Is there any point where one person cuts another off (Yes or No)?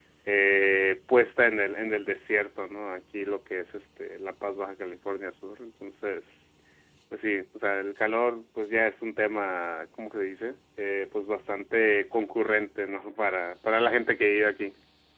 No